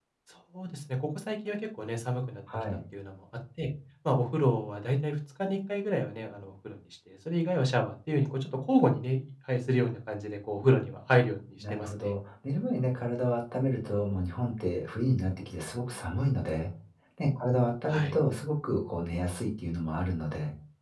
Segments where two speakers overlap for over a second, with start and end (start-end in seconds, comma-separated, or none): none